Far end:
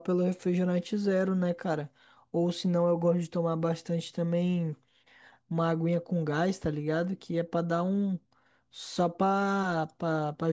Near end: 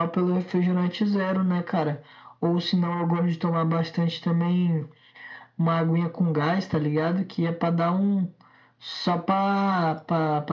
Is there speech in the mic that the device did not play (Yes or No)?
No